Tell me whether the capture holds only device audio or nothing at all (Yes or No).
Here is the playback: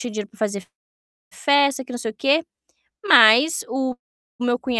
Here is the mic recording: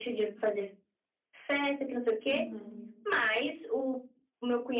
No